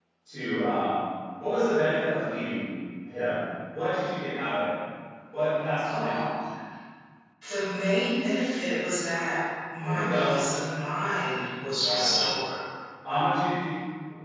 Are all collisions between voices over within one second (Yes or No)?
Yes